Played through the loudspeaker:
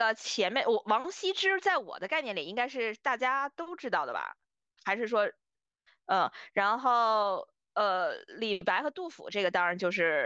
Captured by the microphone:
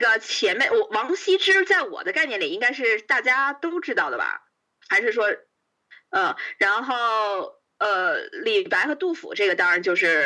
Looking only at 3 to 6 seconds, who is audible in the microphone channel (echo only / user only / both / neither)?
echo only